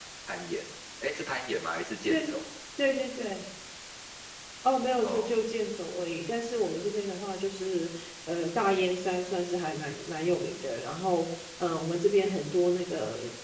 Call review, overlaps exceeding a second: none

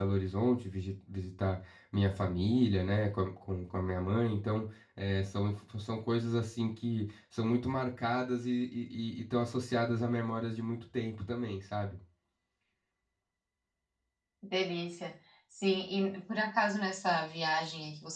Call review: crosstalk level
none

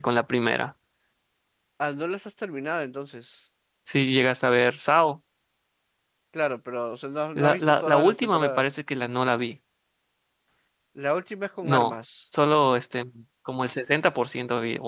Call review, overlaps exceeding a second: present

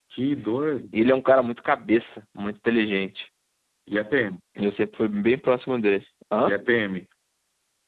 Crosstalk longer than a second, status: none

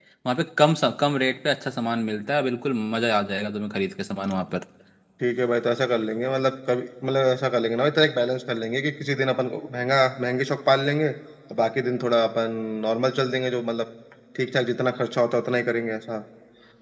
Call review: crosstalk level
none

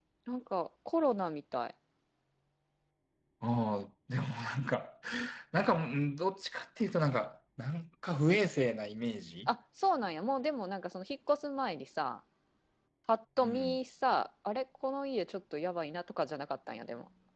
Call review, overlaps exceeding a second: none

